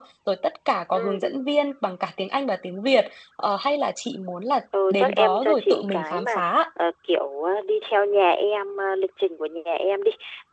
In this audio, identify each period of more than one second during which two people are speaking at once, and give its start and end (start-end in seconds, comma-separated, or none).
4.9-6.6